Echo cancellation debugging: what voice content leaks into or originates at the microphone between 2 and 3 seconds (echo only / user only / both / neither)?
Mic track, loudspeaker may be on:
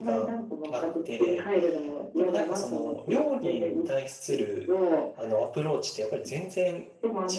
both